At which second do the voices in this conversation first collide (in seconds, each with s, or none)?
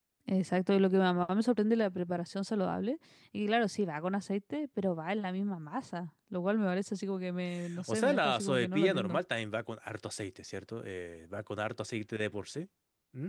7.8 s